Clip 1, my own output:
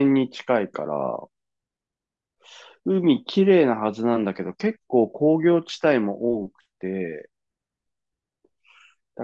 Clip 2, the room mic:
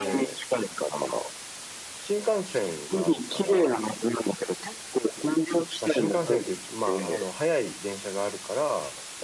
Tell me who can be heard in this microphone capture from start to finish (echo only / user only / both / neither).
both